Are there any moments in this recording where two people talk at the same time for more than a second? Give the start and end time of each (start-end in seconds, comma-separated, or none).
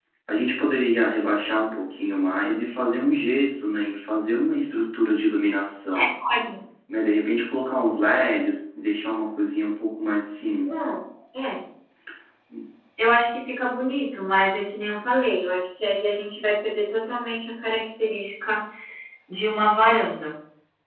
none